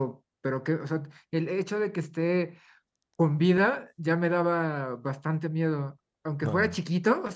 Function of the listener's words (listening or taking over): listening